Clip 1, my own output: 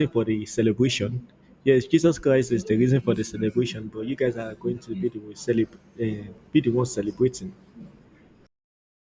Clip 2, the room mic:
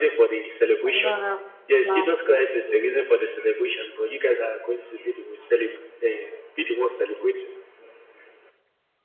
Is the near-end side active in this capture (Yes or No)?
Yes